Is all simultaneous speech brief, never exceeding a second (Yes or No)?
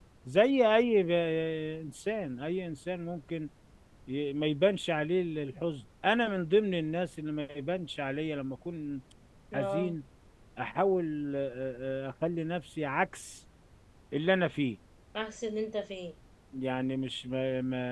Yes